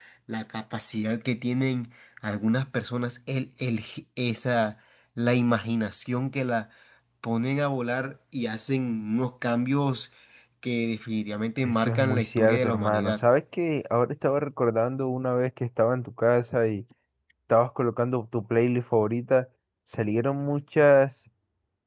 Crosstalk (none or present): present